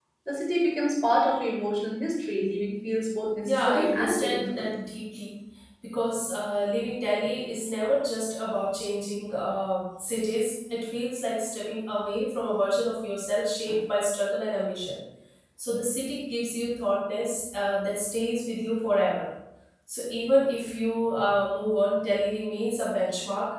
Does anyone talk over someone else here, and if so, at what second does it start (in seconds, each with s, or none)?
3.5 s